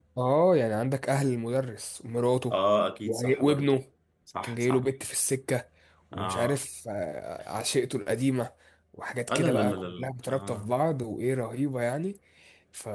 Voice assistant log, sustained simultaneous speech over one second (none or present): present